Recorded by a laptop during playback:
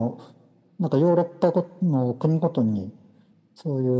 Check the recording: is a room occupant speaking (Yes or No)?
No